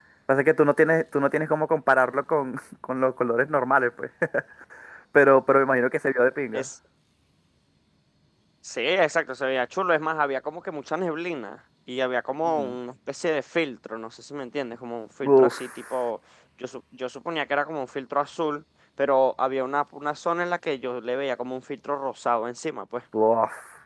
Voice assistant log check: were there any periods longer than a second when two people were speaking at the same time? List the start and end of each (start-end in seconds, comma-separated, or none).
none